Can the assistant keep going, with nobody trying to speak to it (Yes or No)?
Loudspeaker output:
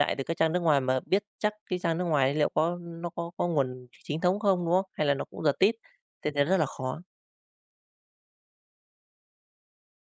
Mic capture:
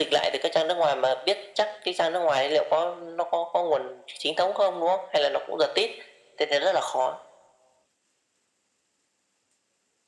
Yes